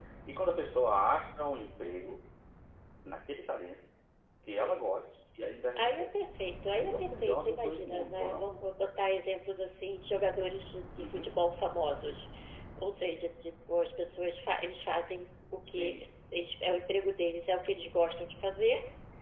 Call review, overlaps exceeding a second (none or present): present